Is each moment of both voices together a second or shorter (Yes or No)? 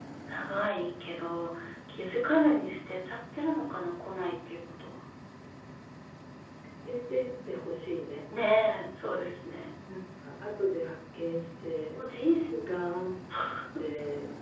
Yes